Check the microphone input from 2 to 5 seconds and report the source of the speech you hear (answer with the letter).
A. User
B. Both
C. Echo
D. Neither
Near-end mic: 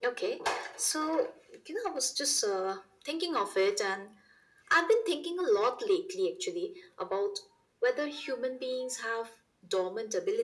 C